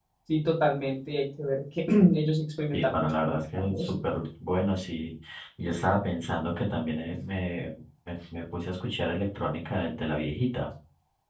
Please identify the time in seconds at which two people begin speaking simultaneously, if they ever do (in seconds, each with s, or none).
2.7 s